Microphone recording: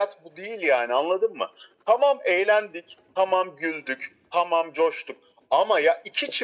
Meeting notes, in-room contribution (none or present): none